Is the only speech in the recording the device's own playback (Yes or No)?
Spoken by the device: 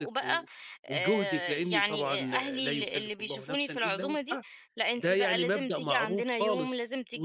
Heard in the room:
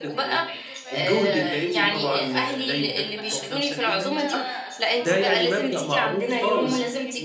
No